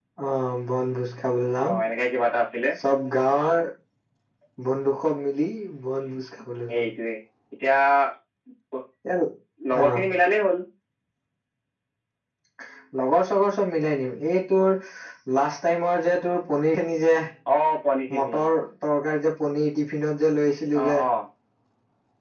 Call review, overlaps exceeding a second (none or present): none